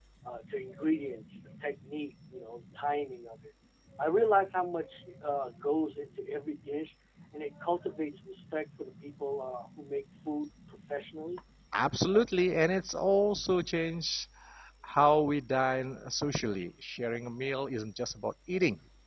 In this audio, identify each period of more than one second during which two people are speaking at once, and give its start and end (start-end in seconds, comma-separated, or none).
none